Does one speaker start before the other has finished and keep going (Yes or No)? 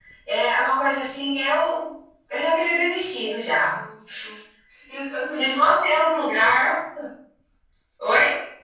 Yes